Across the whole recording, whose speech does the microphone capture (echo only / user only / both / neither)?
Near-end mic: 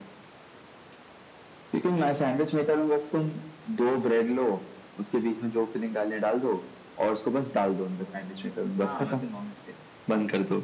both